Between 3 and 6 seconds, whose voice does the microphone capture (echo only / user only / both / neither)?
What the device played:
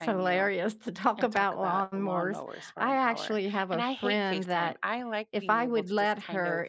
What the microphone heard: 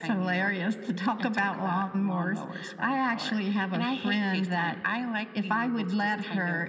echo only